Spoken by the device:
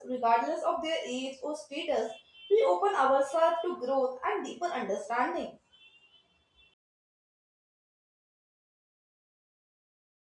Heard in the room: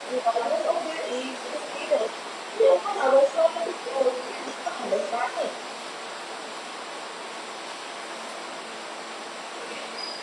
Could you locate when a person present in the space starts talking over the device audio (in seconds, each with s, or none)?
none